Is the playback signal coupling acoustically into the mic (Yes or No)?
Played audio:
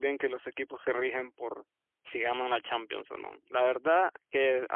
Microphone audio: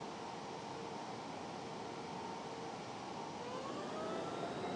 No